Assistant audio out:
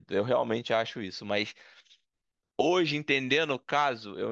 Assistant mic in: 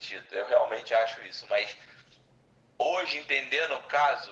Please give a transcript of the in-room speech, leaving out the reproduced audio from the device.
none

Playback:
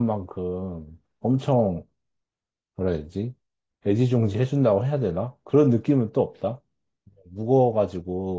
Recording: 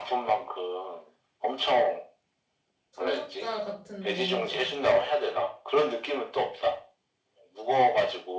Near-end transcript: 창작자 같은 모먼트다.

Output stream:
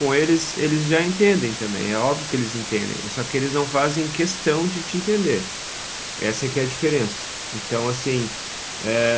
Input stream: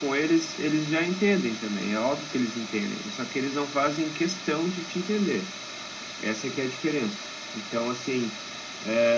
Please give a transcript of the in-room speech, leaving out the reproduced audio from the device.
none

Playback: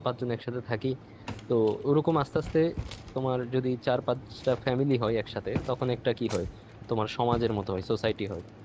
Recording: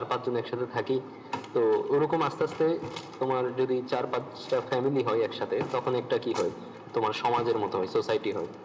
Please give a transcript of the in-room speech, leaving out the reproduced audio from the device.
none

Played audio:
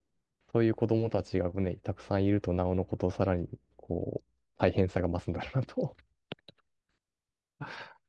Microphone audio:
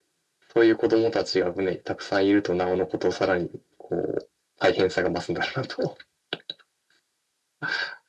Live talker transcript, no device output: none

